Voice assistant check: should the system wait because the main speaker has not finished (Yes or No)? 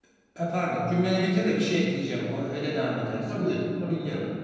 No